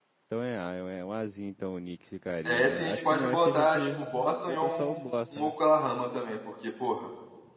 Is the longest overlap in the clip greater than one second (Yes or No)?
Yes